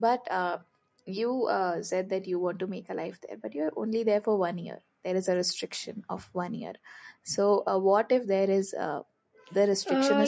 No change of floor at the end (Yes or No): No